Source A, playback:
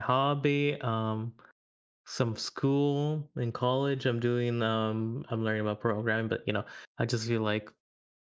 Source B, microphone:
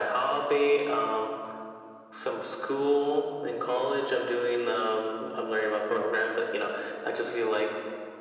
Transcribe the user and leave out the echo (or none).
none